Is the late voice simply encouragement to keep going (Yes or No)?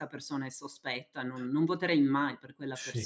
No